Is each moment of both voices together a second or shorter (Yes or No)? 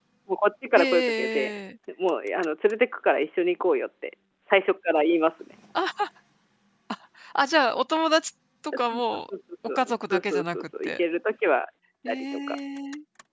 No